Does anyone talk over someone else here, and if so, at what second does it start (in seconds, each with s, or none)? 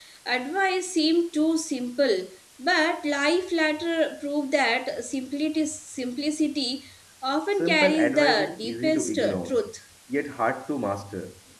7.6 s